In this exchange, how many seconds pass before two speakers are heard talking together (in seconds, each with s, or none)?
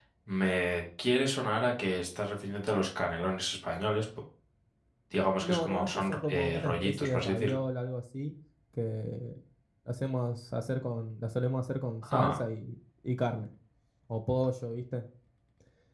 5.4 s